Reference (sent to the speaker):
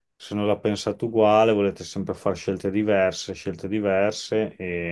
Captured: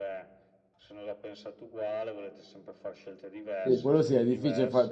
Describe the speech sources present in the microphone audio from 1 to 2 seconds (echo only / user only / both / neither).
echo only